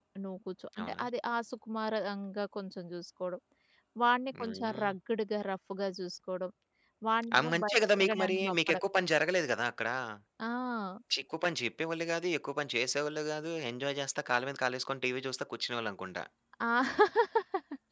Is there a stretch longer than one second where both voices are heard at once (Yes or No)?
Yes